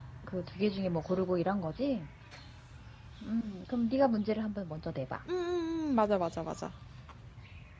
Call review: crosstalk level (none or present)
none